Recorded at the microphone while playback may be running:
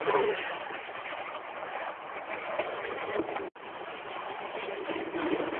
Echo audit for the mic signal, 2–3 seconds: neither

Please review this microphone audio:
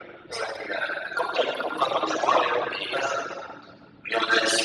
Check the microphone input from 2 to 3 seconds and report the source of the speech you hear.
echo only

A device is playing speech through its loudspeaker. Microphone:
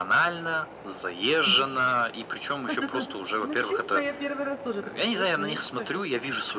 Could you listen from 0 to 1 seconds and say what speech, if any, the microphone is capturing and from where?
echo only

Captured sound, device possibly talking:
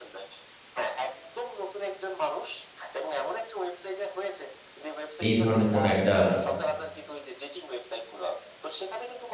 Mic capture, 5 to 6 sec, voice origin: both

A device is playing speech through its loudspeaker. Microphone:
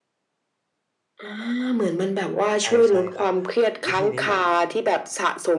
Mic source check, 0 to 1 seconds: neither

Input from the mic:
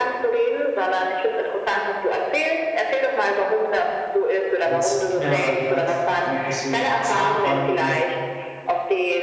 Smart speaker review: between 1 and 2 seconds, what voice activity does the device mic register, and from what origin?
echo only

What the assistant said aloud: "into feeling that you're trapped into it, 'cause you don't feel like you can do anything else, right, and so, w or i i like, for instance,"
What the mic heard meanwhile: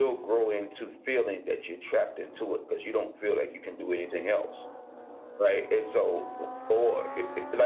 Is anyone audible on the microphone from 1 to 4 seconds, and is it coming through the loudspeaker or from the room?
echo only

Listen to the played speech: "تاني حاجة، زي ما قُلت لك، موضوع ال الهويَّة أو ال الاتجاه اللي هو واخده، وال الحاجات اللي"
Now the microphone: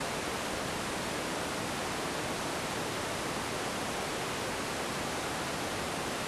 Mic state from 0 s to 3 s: neither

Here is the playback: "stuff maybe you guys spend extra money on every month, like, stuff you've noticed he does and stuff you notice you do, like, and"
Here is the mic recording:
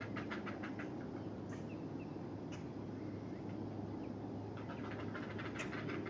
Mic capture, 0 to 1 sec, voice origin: neither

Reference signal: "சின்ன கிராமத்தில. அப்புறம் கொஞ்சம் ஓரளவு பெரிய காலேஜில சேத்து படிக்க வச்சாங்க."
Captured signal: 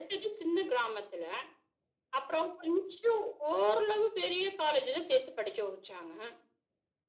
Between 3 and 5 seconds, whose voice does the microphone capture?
echo only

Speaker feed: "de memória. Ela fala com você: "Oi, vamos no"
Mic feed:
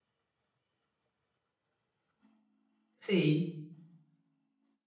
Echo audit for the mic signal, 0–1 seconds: neither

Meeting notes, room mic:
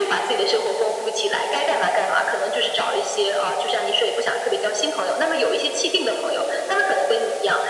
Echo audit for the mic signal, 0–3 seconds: echo only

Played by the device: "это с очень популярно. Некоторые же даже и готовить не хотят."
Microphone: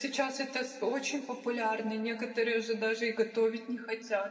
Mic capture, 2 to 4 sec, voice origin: echo only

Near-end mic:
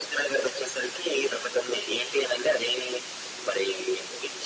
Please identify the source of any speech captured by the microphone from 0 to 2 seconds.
echo only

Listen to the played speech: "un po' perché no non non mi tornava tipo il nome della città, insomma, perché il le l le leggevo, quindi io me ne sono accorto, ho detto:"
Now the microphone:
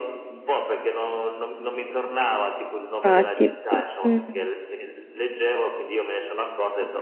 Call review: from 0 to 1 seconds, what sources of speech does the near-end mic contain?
echo only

